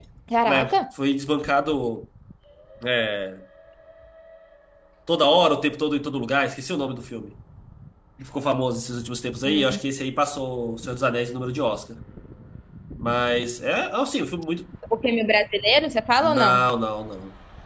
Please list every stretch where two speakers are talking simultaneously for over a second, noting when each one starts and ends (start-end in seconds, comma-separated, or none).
none